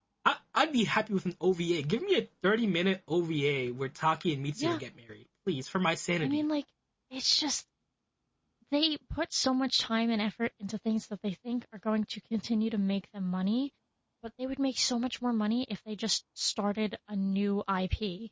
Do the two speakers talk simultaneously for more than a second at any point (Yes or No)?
No